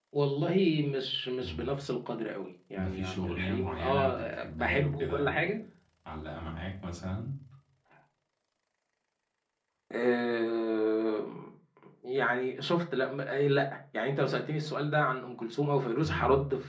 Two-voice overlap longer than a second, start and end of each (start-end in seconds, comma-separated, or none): 2.8-5.4